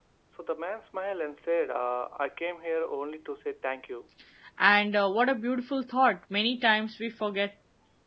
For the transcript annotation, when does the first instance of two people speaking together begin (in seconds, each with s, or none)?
none